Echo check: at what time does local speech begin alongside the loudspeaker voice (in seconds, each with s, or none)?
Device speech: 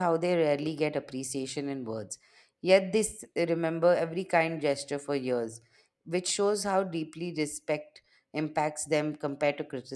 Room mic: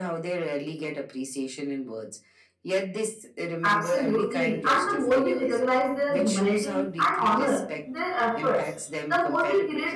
3.6 s